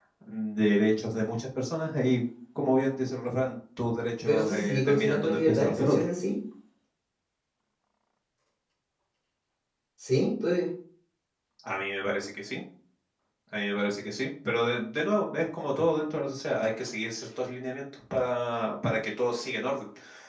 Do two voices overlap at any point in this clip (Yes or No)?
Yes